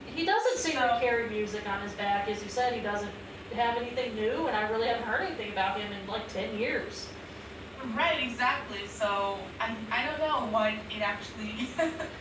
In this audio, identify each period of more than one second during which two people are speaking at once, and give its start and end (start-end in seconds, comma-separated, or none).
none